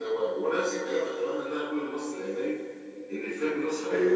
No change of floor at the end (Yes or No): Yes